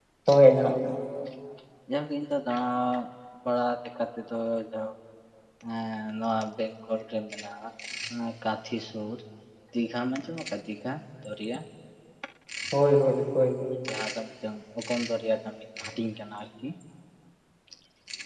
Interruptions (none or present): none